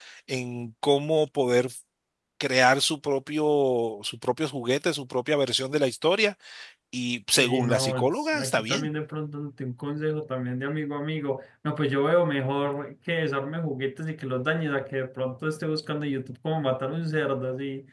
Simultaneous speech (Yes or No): Yes